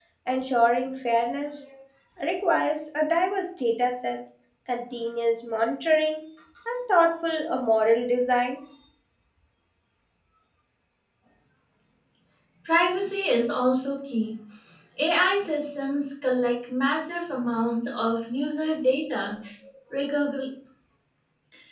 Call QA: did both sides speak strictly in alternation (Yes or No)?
Yes